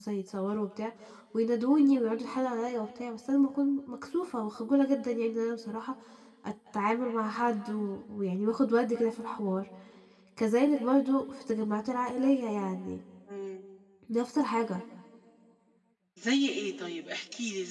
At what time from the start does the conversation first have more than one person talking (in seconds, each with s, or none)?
none